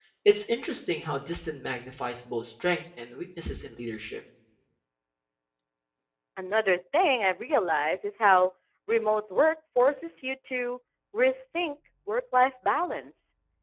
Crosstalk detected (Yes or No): No